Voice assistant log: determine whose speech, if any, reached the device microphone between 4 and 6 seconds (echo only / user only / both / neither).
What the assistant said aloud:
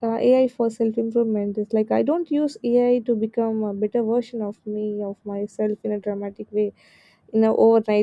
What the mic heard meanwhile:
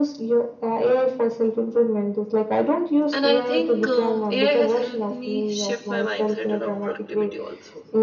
both